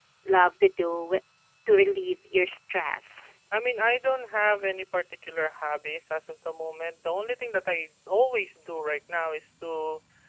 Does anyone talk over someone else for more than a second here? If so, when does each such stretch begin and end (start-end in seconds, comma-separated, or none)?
none